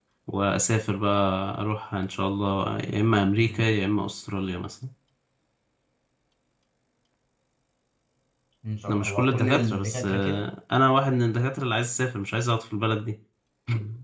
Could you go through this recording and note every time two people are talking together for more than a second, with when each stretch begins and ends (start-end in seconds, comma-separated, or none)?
8.9-10.4